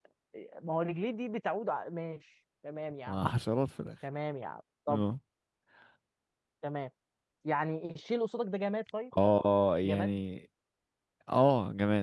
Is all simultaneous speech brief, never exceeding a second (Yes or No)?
Yes